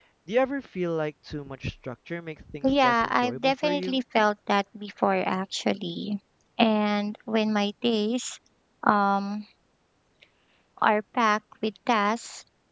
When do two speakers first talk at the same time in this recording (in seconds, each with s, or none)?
2.6 s